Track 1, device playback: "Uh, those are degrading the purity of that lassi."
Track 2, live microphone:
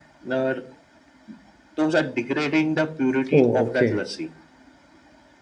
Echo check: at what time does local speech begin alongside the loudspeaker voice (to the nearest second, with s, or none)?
3 s